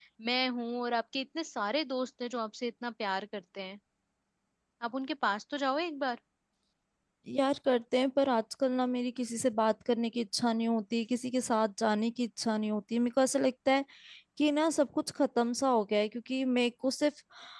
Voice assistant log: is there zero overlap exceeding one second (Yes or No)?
Yes